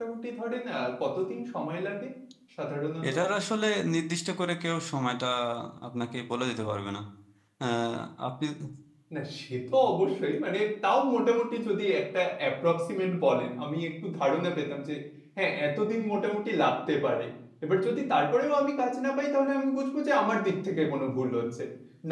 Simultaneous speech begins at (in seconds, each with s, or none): none